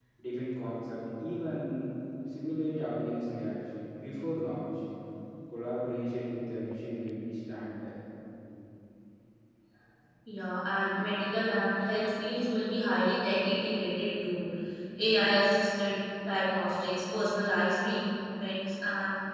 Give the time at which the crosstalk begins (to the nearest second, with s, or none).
none